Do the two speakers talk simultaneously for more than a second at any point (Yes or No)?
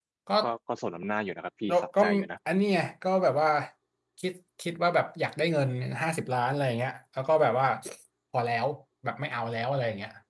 No